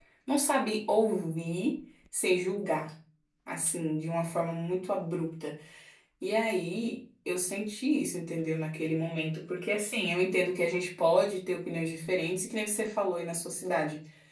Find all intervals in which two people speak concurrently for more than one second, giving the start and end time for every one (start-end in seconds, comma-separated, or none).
none